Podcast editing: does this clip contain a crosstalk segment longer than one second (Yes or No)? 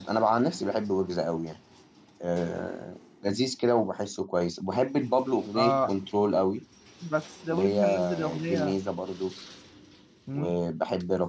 Yes